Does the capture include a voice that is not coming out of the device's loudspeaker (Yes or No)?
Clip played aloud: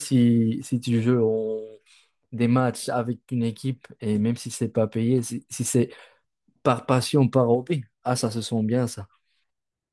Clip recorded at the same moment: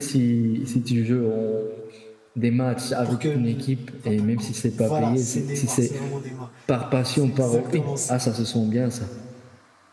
Yes